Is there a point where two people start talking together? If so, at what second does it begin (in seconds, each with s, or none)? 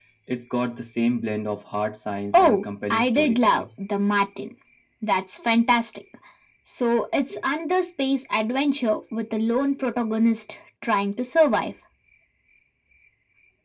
2.3 s